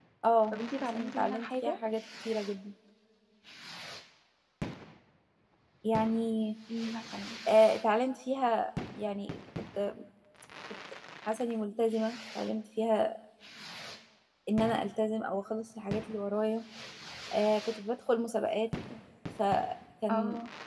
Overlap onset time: 1 s

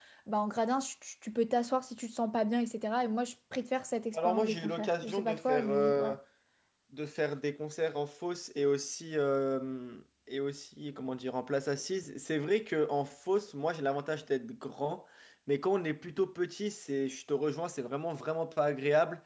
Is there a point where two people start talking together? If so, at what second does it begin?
4 s

